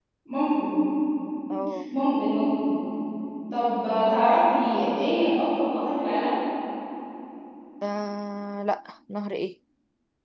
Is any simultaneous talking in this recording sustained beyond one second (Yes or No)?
No